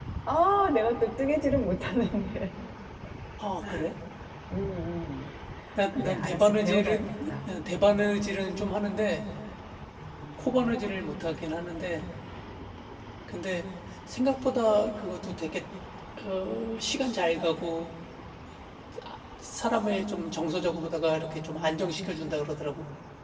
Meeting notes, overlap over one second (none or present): present